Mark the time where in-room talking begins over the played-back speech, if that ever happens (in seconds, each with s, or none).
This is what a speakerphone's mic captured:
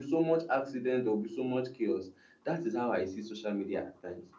none